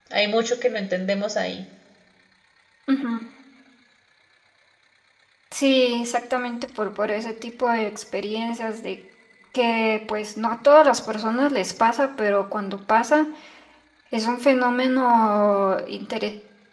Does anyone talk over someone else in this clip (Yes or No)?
No